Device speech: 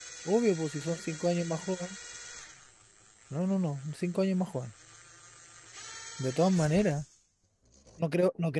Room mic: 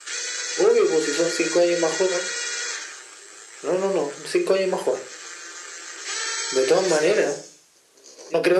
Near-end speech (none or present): none